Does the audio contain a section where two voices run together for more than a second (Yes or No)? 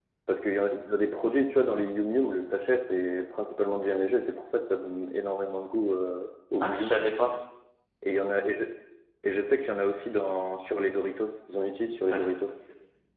No